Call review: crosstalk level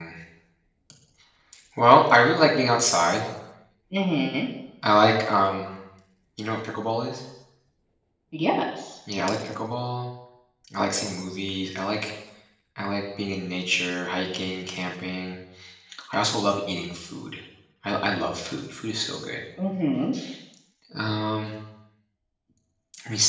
none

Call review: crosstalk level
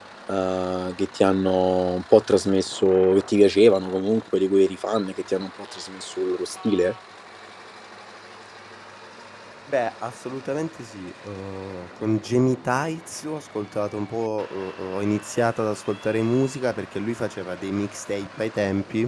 none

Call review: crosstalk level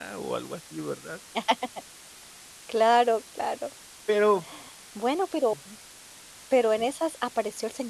none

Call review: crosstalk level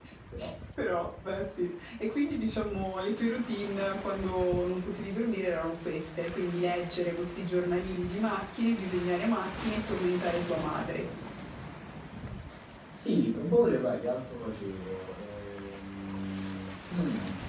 none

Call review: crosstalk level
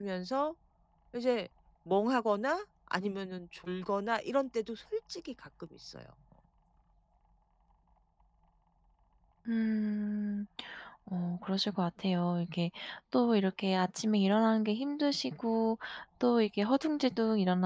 none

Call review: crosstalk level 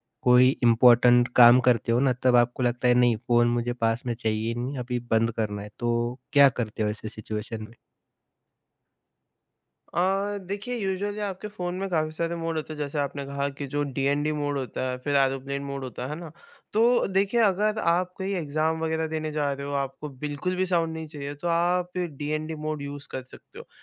none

